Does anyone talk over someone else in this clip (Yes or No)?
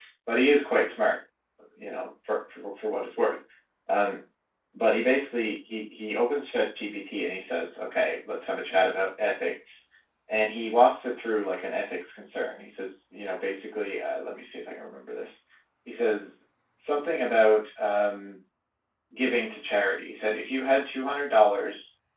No